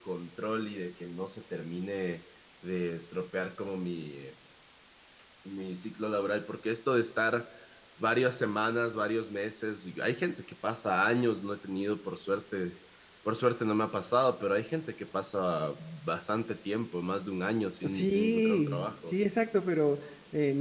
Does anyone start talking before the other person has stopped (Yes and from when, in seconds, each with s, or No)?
Yes, from 17.8 s